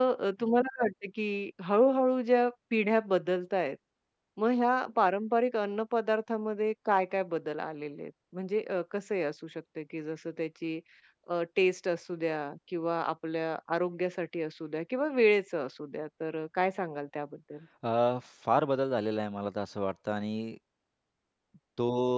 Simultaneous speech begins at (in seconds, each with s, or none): none